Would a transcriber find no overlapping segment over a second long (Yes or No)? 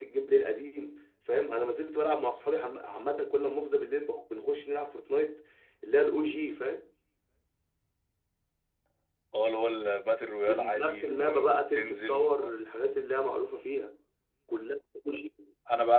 No